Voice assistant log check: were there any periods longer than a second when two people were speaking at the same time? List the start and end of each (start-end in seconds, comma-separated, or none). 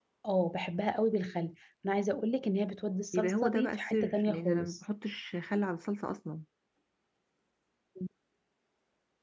3.1-4.8